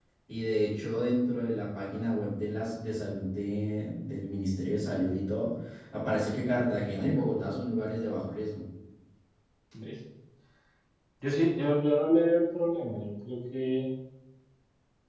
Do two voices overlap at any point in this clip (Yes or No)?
No